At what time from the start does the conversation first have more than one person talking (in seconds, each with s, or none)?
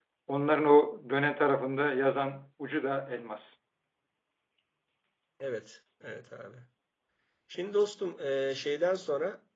none